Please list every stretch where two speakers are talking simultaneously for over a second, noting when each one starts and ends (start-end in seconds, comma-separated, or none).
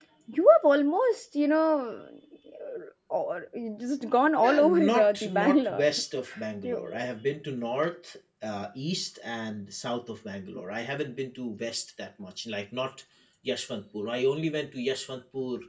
4.4-5.8